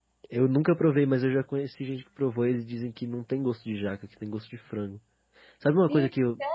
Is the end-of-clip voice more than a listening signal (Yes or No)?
Yes